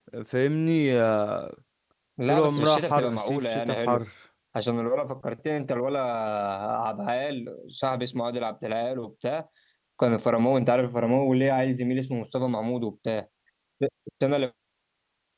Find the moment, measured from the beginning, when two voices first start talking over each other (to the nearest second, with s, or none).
2 s